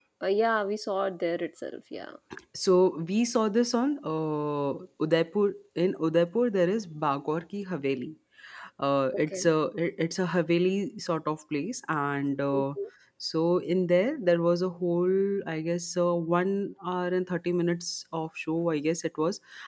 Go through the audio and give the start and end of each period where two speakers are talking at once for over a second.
none

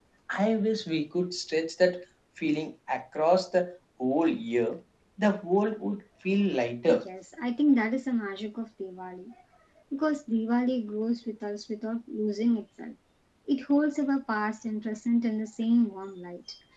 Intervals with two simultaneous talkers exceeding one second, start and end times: none

